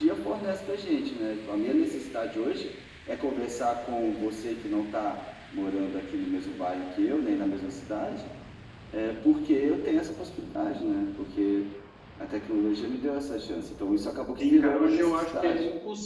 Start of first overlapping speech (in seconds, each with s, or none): 14.4 s